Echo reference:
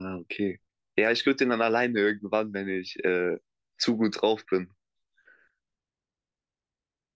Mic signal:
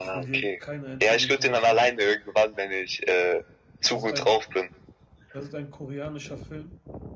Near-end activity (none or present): present